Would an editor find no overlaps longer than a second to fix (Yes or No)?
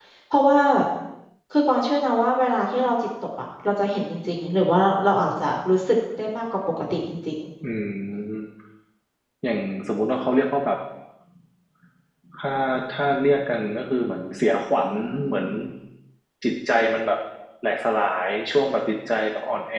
Yes